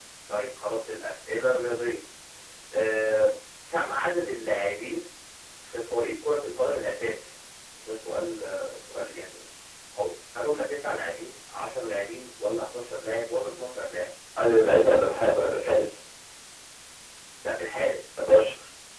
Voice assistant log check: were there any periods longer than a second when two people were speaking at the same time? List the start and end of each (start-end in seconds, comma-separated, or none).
none